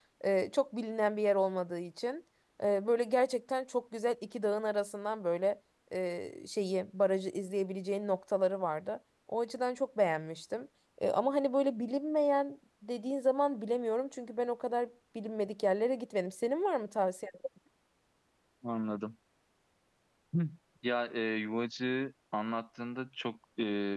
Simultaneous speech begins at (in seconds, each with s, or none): none